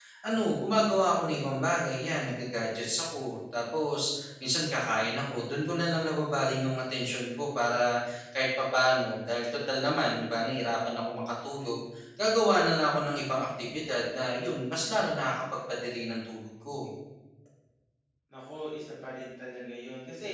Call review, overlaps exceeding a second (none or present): none